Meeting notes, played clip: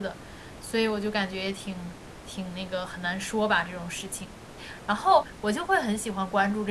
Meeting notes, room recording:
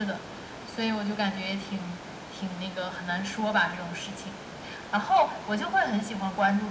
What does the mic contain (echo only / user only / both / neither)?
echo only